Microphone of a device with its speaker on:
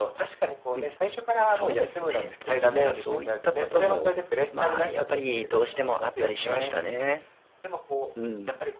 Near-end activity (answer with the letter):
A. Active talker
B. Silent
A